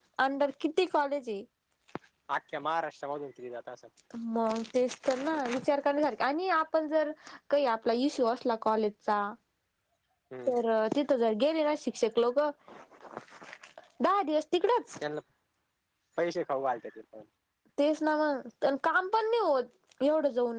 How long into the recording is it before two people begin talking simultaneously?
none

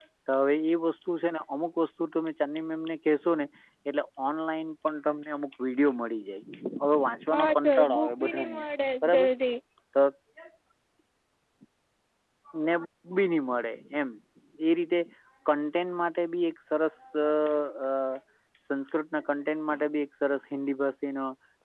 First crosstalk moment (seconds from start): 7 s

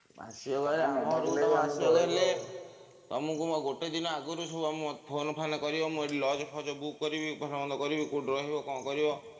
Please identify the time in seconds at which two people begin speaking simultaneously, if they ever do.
1 s

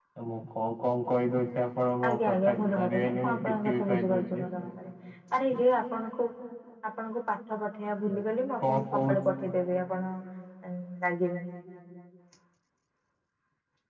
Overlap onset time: 2 s

